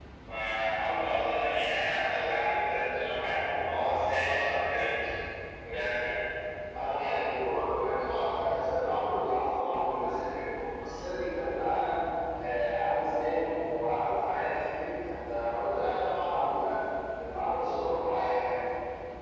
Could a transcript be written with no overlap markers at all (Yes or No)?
Yes